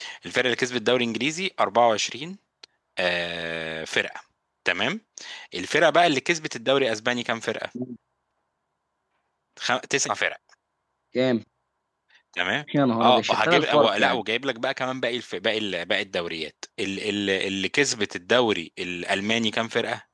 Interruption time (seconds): 13.0 s

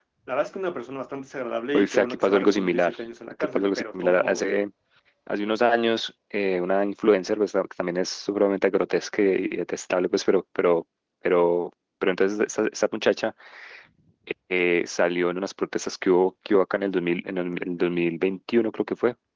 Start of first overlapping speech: 1.7 s

